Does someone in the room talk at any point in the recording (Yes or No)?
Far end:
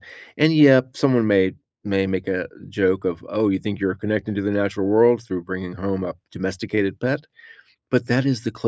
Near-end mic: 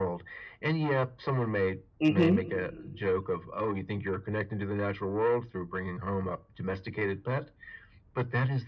Yes